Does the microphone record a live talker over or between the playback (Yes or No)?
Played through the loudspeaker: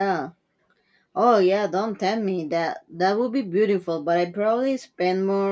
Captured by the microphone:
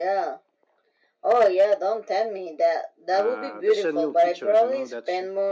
Yes